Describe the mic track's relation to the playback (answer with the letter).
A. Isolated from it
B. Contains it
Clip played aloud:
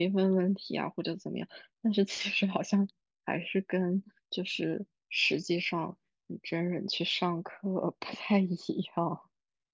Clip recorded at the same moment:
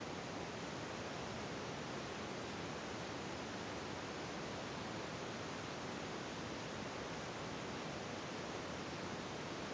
A